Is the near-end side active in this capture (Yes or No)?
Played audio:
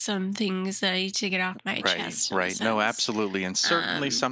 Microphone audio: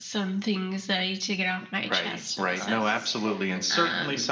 Yes